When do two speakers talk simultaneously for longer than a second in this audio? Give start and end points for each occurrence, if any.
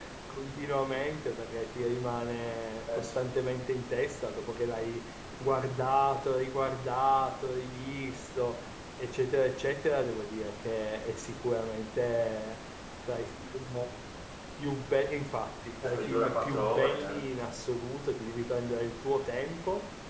15.8-17.2

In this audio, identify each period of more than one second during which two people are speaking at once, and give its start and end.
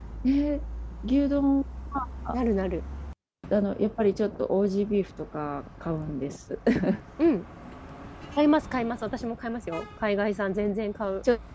none

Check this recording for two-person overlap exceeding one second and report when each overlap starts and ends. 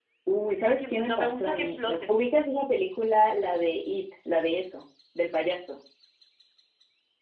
0.7-1.9

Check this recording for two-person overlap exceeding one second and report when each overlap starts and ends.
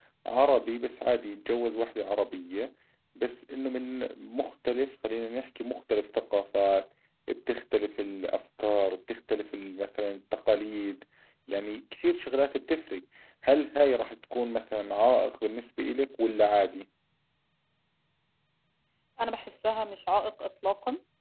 none

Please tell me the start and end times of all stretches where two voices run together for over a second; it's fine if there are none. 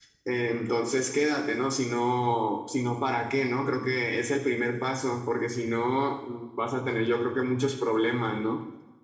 none

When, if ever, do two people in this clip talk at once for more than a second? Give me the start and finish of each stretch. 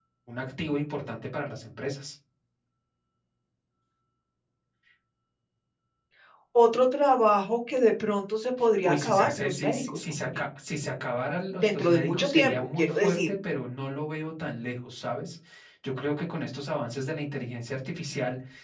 8.8-10.4, 11.6-13.3

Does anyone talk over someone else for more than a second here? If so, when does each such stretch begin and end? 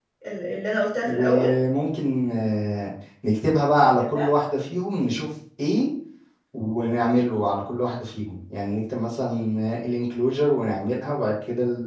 none

